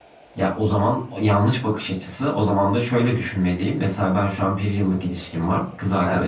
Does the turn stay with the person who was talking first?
Yes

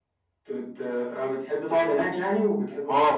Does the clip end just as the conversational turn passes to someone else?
Yes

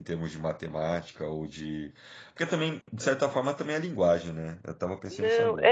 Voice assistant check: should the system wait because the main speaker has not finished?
No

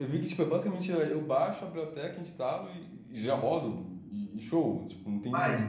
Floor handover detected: Yes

